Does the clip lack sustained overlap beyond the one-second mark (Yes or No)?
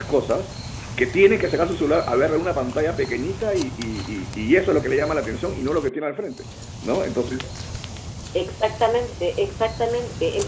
Yes